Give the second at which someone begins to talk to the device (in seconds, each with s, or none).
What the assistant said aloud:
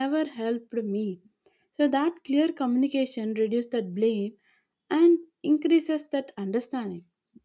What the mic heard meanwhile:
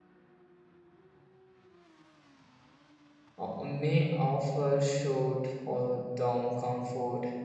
3.4 s